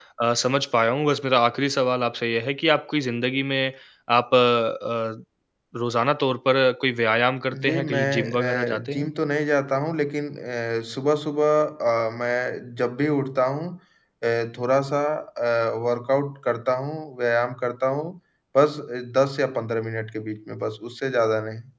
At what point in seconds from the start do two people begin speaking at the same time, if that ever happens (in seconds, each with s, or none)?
7.5 s